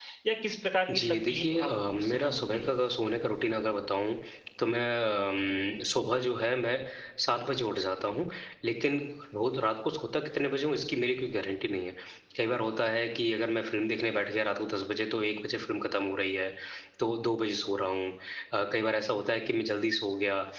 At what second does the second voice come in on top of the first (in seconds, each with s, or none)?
0.9 s